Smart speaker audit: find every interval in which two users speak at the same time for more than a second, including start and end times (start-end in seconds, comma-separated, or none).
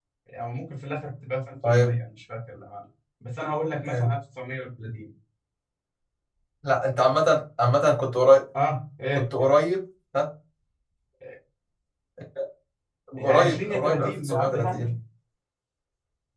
13.2-14.9